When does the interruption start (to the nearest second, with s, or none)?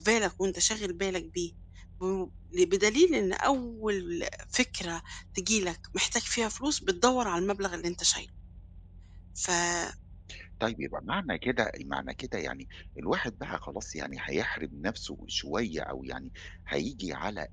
none